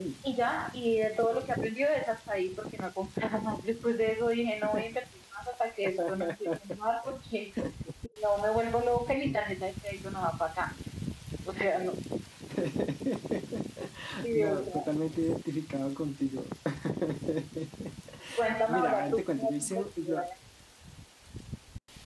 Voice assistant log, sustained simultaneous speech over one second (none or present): present